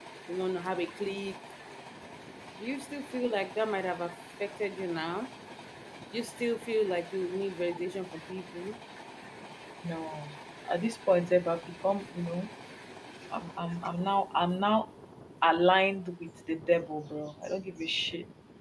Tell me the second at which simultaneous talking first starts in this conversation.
none

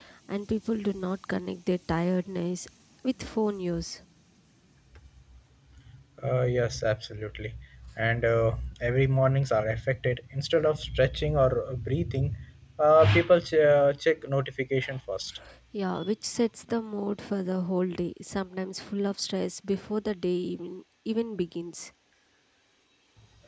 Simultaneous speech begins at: none

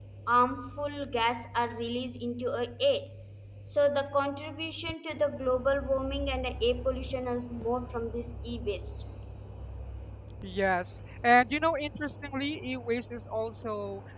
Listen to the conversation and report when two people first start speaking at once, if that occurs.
none

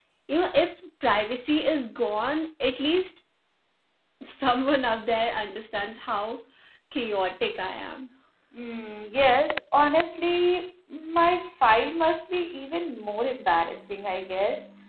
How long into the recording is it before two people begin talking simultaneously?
none

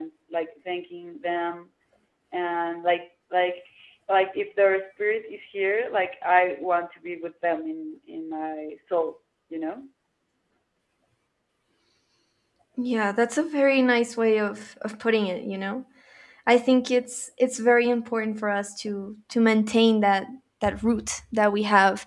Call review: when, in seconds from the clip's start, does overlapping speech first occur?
none

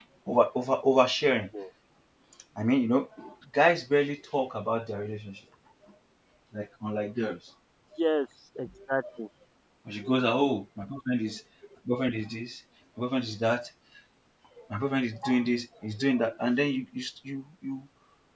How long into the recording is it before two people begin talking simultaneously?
none

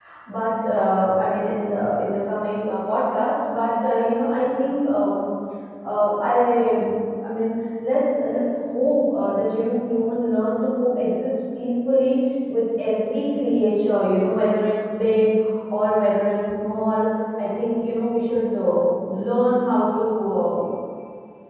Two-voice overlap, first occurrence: none

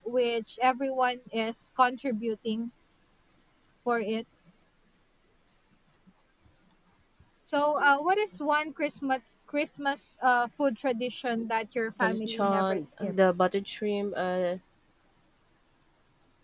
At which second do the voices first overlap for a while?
12.0 s

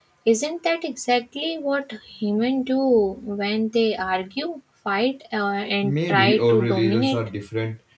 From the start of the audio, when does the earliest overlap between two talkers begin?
5.8 s

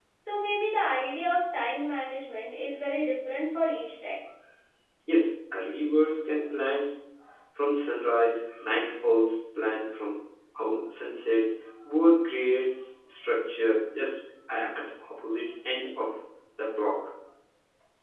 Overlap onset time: none

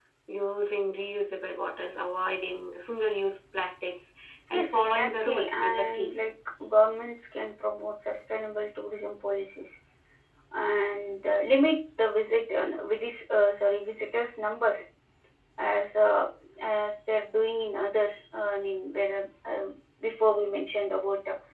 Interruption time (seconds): 4.5 s

